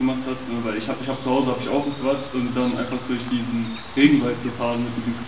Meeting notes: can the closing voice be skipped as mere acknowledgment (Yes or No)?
Yes